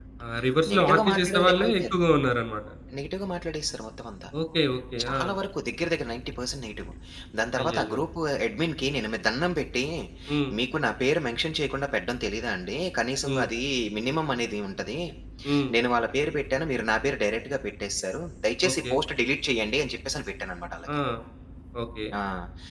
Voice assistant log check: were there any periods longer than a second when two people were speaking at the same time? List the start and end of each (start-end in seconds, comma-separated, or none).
0.7-1.9